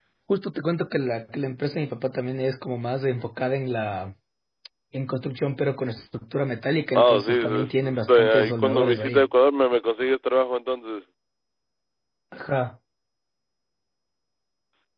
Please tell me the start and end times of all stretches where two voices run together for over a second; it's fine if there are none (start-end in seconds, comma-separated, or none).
6.9-9.3